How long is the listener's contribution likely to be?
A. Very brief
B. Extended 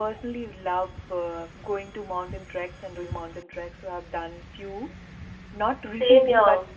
A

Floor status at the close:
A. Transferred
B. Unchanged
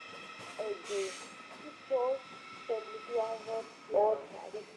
A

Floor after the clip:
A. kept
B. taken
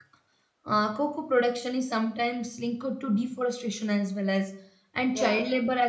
A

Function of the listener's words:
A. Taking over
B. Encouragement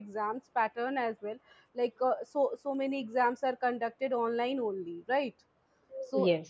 B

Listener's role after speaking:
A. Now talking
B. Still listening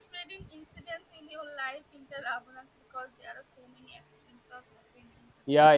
A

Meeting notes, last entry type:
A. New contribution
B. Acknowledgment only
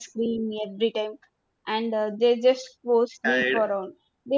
B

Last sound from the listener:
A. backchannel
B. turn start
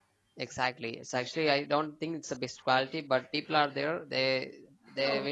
A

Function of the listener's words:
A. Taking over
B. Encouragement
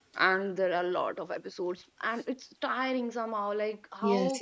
A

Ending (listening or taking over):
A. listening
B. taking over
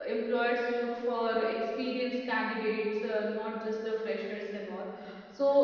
A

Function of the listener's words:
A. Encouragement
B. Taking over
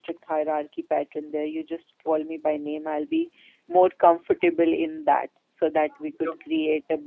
A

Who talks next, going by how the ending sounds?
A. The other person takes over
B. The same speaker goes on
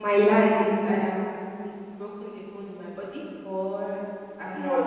A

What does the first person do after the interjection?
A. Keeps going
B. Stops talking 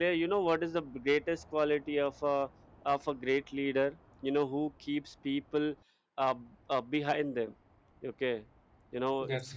A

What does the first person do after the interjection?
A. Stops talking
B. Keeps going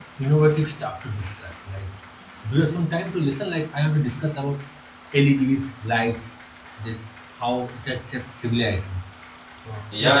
A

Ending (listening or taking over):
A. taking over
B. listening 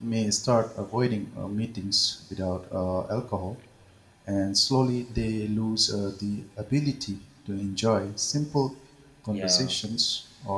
B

